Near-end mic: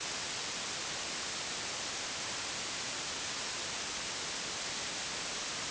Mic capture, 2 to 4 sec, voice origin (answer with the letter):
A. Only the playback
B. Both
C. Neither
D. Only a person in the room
C